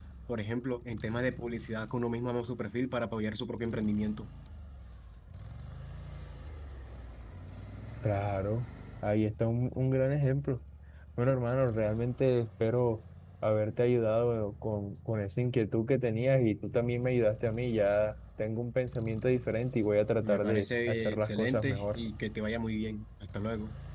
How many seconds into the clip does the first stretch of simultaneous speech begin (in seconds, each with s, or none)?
20.2 s